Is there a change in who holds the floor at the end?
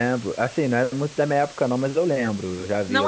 Yes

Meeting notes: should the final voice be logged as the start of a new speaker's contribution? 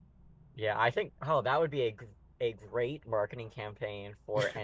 No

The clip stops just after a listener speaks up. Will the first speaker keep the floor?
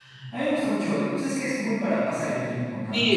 No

